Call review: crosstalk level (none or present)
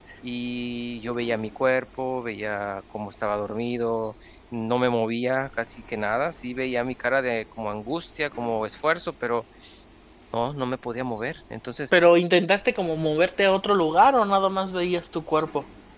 none